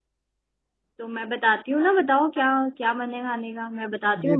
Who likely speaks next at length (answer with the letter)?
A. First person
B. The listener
B